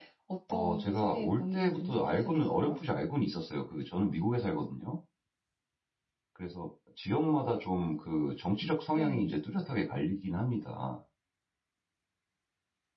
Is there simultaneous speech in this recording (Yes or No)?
Yes